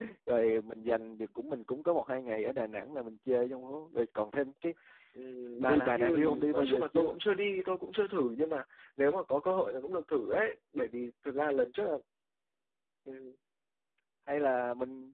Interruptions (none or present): present